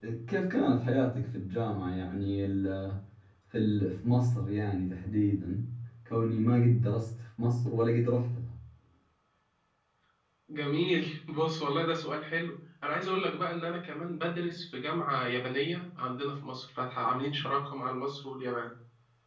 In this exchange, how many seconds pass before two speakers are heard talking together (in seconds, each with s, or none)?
none